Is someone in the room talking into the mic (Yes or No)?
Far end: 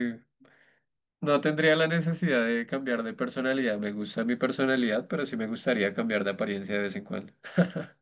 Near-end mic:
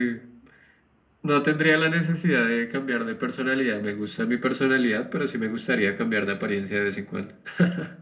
No